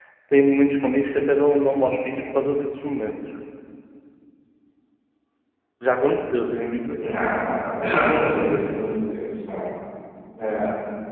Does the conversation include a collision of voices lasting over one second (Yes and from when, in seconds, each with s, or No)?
No